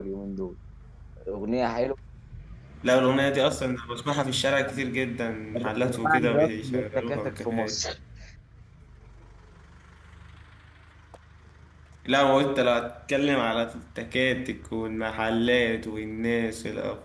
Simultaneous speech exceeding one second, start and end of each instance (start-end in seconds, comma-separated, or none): 5.8-7.8